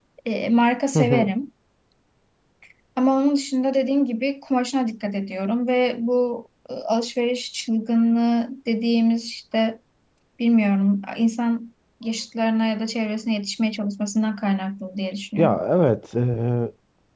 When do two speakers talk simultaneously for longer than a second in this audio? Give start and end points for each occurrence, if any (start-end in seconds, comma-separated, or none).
none